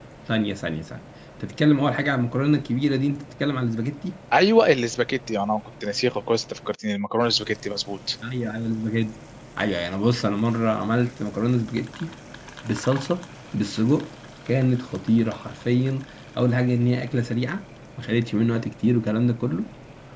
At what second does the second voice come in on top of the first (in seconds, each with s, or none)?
none